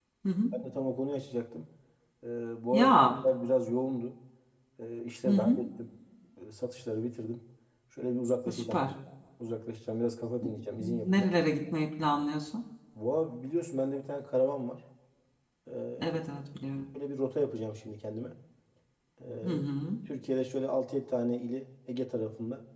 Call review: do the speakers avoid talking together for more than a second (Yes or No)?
Yes